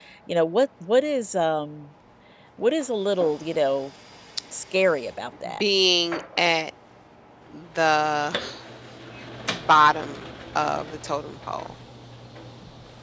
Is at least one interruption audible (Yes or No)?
No